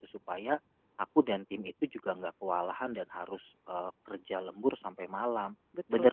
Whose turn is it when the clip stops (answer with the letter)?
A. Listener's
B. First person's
B